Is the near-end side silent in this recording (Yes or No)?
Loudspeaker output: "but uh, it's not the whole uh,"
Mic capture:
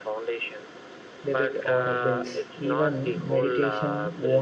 No